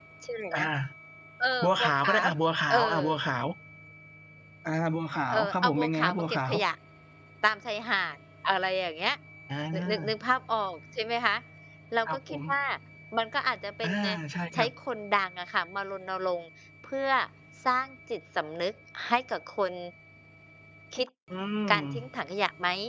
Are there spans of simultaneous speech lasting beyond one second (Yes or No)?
Yes